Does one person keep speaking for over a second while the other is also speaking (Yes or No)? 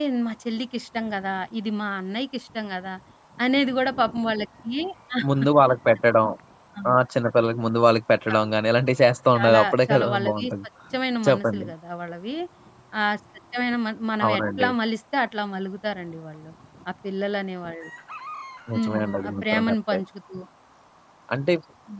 Yes